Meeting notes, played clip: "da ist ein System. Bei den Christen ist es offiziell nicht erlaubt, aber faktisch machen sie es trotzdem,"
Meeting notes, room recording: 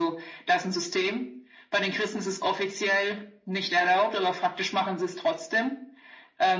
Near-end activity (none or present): none